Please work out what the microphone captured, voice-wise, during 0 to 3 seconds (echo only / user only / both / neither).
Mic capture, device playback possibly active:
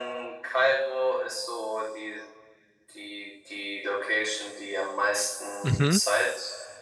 echo only